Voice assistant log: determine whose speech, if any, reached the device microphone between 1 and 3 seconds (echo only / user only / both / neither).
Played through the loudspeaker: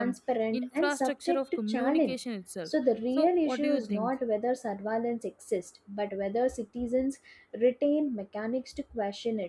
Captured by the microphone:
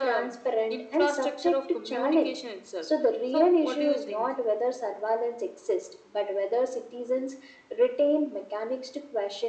echo only